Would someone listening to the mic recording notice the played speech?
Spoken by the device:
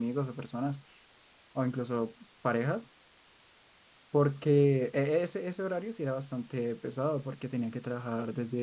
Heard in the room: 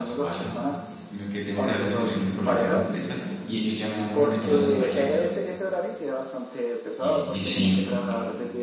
Yes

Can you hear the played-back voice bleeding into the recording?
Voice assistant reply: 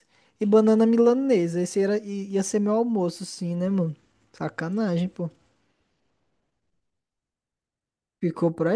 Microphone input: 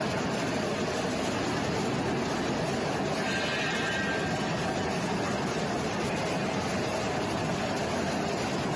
No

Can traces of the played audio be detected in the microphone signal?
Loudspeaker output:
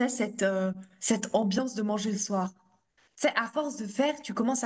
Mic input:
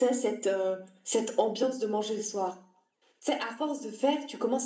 Yes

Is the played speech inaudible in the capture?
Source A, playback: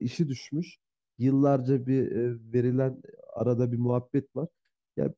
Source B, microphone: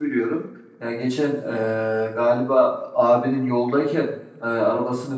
Yes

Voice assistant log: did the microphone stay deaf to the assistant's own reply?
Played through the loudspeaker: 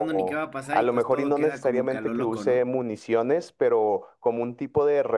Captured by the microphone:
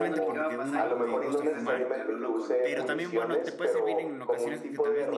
No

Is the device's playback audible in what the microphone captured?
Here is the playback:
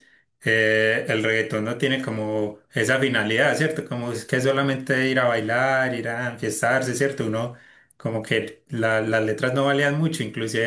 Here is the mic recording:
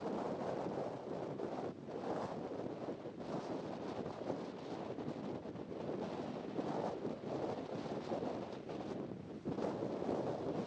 No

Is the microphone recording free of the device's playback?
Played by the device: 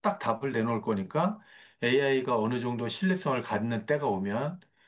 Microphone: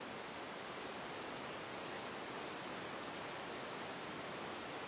Yes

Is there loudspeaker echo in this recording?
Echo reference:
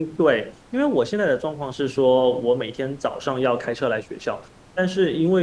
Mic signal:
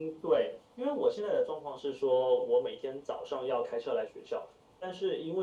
Yes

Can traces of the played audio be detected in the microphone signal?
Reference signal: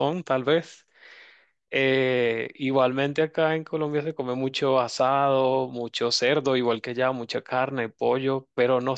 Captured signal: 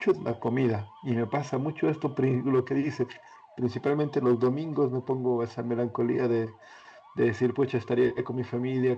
No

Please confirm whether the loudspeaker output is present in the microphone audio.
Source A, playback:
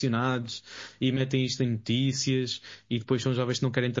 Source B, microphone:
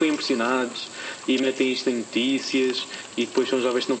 Yes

